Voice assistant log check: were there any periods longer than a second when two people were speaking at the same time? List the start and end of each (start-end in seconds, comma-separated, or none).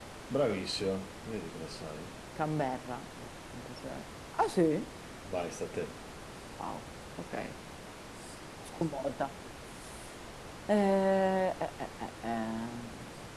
none